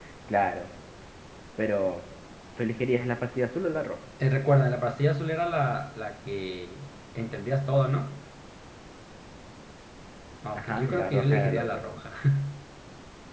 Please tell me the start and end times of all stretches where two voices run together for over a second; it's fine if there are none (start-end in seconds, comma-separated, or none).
10.6-11.8